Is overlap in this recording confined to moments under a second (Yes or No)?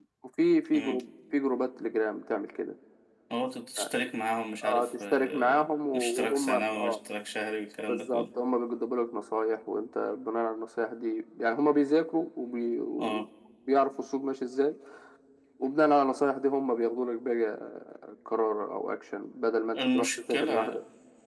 No